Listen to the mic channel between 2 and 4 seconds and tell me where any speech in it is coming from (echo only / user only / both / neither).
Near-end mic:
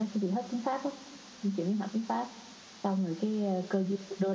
echo only